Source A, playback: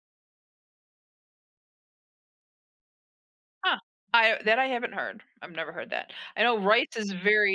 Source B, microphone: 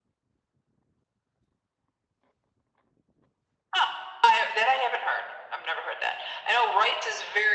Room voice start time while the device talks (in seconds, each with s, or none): none